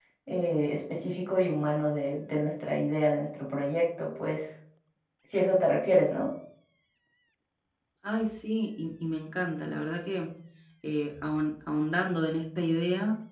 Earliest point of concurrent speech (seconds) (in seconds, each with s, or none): none